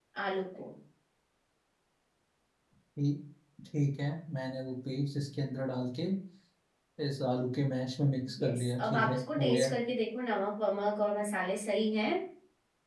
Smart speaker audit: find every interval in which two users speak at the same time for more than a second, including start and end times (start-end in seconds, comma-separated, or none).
8.4-9.7